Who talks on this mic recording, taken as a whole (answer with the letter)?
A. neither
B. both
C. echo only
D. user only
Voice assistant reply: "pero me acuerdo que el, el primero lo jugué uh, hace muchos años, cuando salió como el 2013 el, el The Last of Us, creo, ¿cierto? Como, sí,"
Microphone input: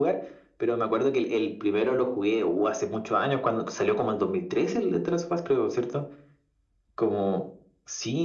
C